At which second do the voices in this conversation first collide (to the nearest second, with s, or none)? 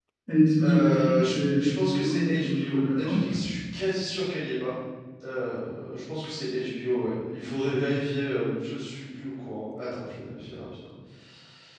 1 s